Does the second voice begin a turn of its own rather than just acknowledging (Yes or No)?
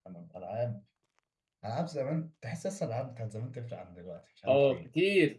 Yes